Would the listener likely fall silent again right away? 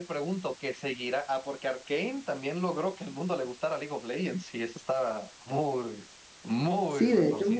No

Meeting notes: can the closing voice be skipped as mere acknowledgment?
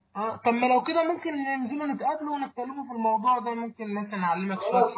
No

